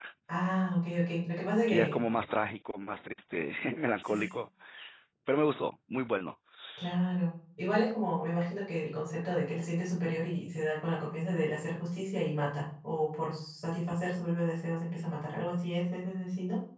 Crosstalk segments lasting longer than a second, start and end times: none

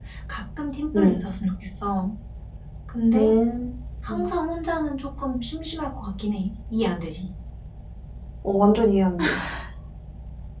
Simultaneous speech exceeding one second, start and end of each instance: none

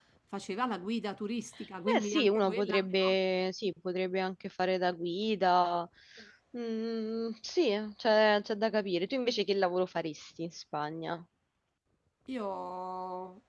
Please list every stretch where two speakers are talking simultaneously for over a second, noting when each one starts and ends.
1.9-3.1

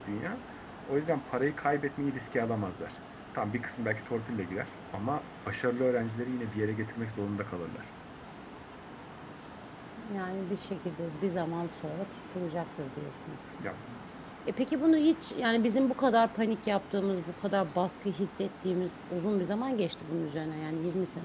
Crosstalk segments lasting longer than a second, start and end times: none

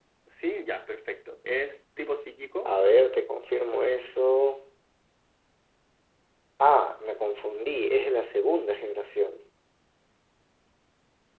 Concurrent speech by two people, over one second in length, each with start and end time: none

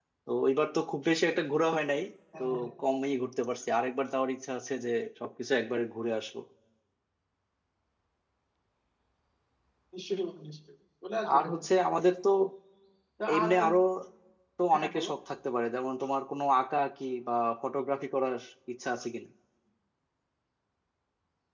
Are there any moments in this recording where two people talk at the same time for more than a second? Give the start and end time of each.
none

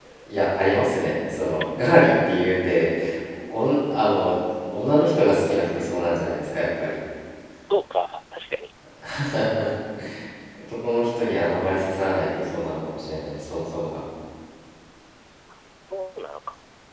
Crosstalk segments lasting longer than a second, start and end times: none

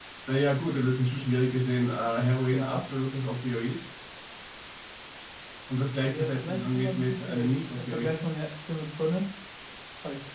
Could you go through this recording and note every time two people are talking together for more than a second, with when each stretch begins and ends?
6.0-8.1

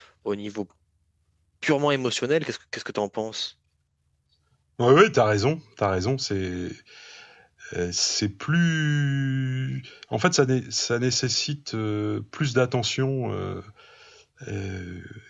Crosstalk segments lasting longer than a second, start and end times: none

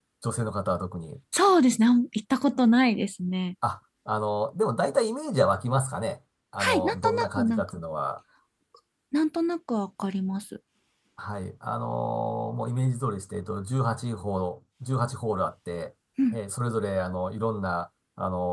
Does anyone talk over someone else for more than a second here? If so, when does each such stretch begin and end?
6.6-7.8

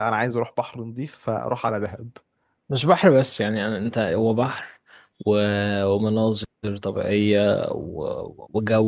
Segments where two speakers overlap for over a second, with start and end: none

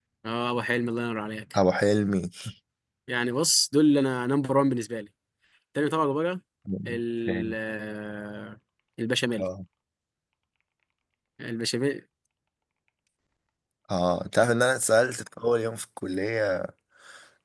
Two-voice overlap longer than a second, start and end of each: none

